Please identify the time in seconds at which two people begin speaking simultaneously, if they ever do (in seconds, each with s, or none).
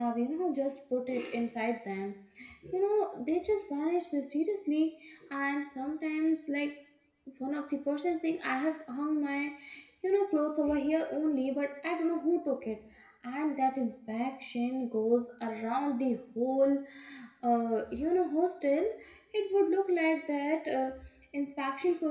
none